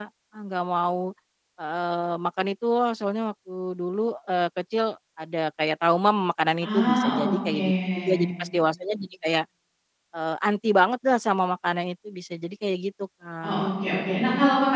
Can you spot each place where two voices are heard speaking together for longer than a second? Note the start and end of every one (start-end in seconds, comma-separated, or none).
6.6-8.2